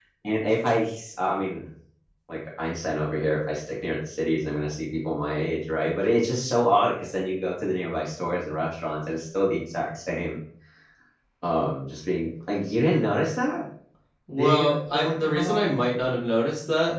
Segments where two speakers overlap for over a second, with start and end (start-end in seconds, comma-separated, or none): 14.4-15.7